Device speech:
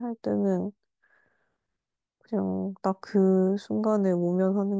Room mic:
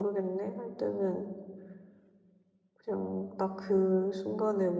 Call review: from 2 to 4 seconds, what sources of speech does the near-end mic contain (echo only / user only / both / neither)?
echo only